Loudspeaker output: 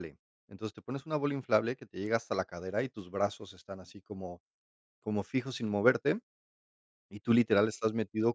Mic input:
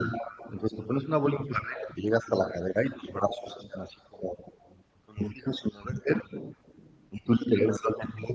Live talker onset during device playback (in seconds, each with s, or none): none